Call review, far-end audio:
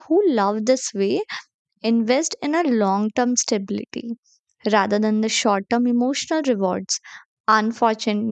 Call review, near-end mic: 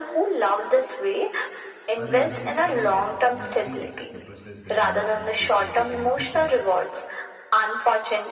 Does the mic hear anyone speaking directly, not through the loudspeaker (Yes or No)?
Yes